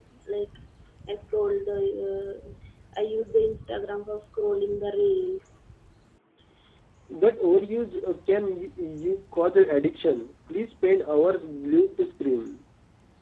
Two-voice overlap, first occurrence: none

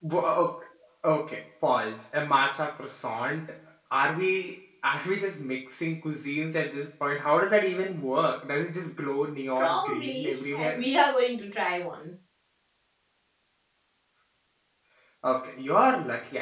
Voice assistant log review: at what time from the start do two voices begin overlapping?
10 s

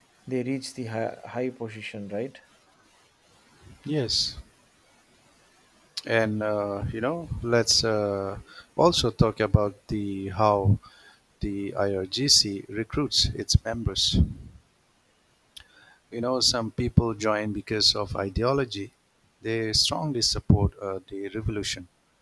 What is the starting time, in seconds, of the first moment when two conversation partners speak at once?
none

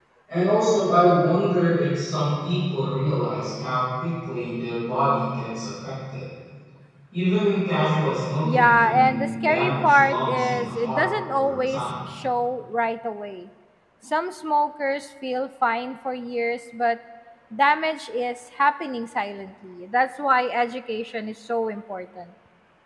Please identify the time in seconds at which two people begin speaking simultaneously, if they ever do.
8 s

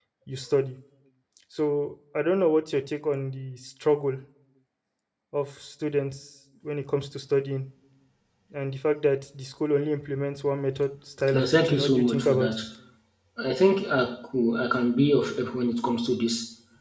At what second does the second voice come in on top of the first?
11 s

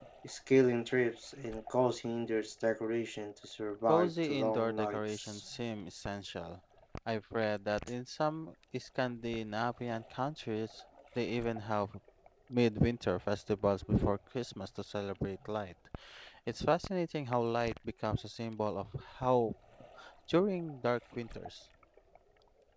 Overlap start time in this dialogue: 4 s

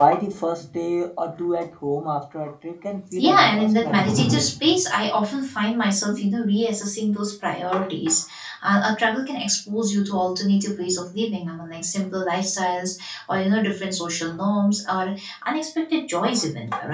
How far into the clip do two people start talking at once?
3 s

